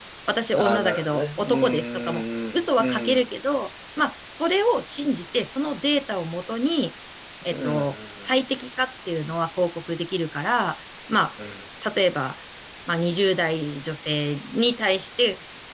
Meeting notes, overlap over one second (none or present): present